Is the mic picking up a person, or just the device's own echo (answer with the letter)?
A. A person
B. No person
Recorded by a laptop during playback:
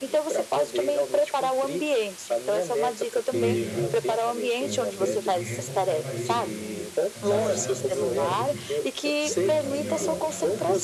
A